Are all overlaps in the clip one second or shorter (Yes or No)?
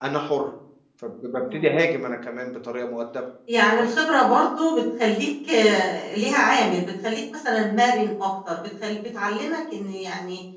Yes